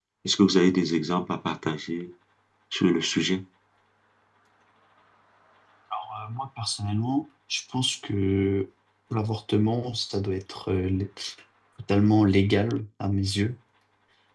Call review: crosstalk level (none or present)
none